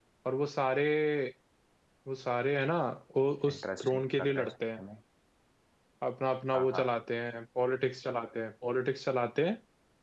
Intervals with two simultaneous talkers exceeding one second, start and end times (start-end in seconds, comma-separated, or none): 3.5-4.8